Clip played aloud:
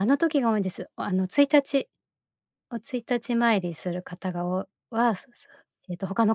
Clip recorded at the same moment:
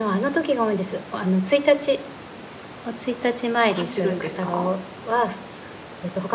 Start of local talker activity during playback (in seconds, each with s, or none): 3.7 s